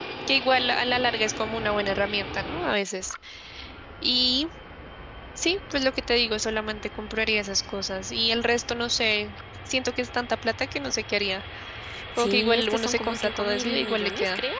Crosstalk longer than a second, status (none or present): present